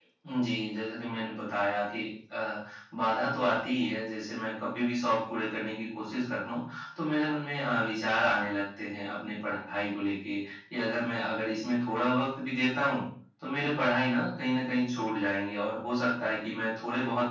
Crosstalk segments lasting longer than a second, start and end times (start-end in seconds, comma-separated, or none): none